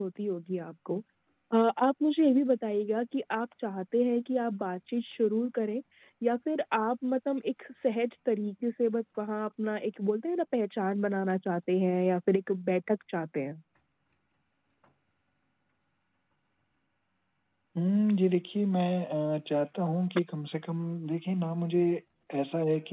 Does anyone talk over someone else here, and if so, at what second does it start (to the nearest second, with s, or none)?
none